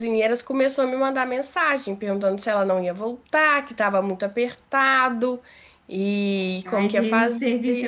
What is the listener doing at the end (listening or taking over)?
taking over